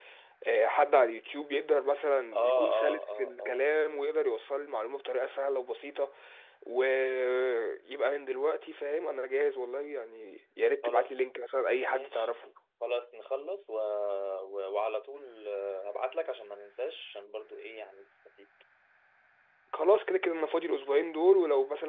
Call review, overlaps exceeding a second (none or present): present